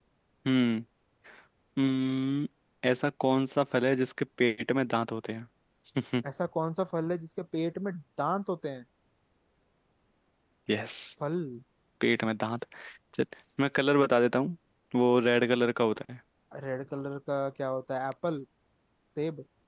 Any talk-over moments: No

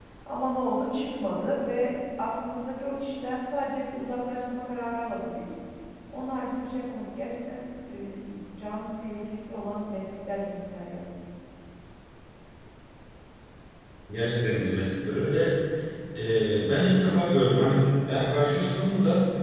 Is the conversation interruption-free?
Yes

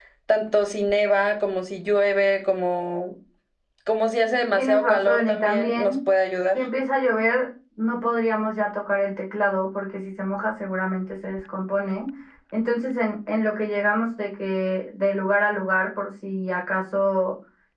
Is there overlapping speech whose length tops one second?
Yes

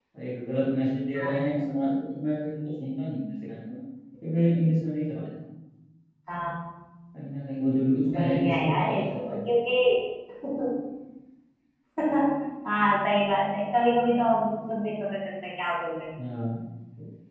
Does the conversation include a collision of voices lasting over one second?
Yes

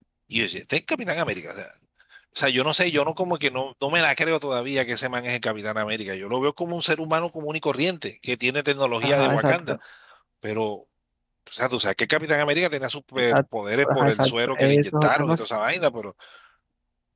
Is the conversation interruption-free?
No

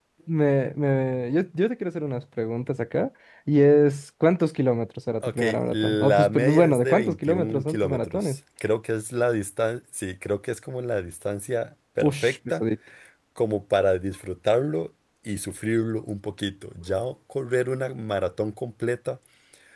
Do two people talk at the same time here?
Yes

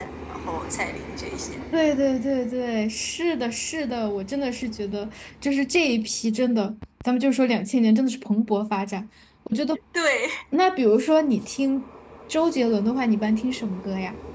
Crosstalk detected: No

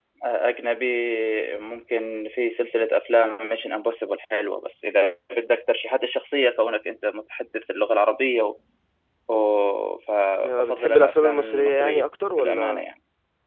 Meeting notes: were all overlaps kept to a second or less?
No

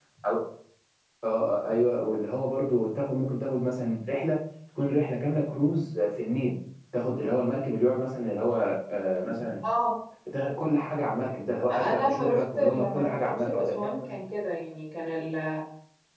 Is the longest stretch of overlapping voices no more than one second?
No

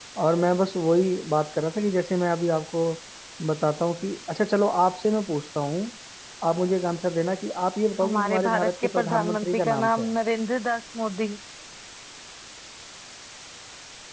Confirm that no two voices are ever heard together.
No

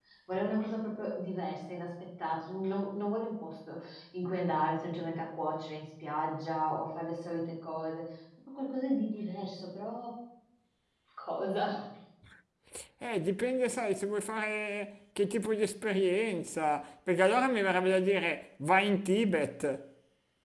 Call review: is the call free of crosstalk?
Yes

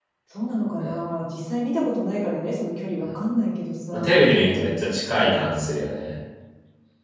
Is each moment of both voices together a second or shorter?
Yes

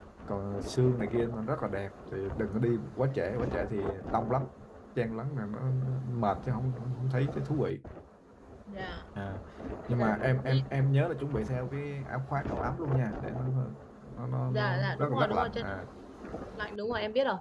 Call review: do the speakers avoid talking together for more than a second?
No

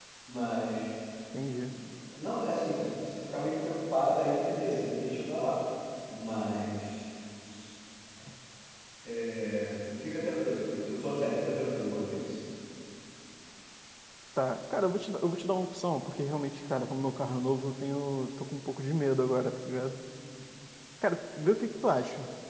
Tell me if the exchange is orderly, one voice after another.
Yes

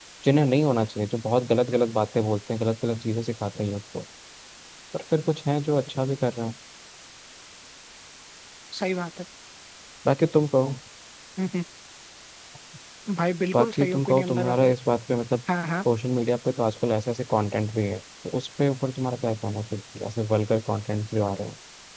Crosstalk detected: Yes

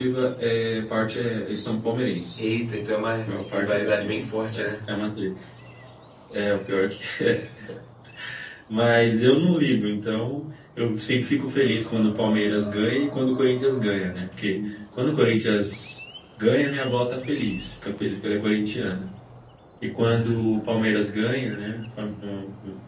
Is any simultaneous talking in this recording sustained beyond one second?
Yes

